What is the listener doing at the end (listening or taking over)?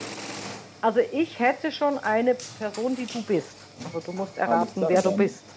taking over